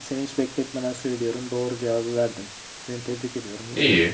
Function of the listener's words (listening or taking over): taking over